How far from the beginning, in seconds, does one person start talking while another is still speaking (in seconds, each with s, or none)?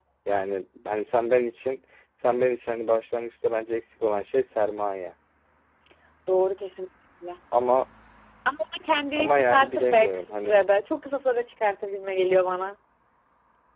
9.2 s